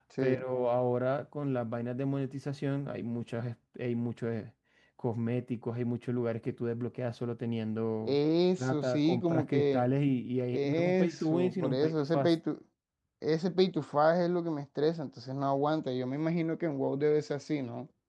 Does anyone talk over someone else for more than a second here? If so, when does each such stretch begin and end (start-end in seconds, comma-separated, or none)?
8.6-9.8, 10.5-12.3